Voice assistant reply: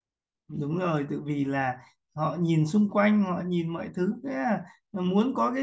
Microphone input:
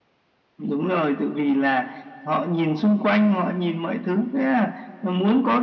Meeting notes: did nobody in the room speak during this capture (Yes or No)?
Yes